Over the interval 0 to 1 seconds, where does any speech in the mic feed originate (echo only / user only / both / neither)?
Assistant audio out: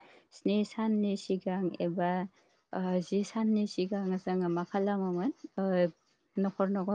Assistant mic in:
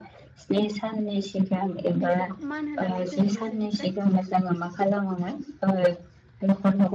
echo only